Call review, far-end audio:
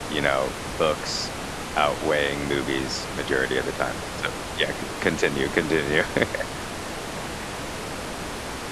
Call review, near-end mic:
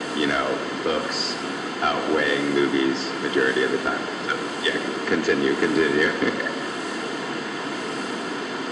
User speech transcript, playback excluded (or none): none